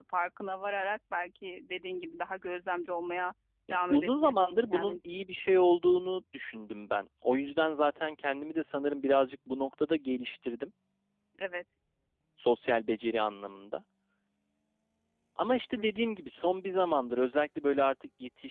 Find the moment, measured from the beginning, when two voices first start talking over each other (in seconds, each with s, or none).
3.7 s